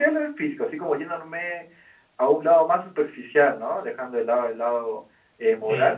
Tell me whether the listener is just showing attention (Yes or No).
Yes